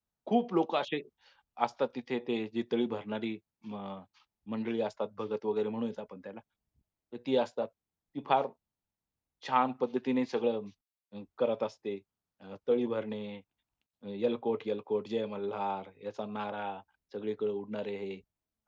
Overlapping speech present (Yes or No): No